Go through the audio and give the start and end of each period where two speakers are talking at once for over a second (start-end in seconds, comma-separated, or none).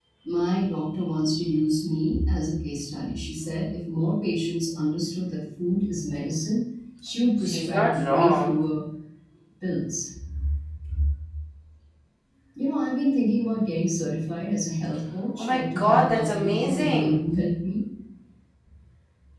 7.4-8.6, 15.4-17.2